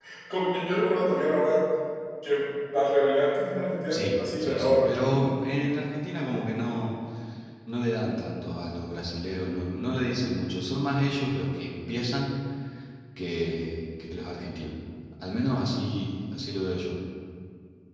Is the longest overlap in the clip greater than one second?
Yes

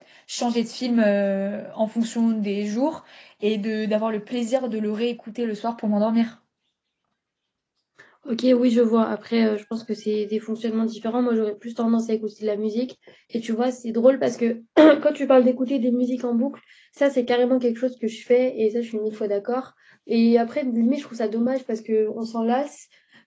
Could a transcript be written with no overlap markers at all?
Yes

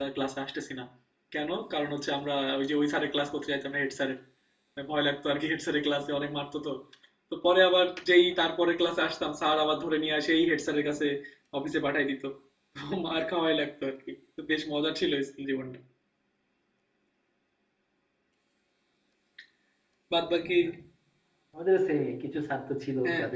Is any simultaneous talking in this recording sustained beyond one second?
No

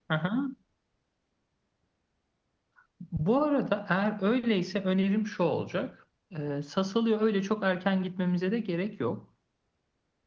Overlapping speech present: No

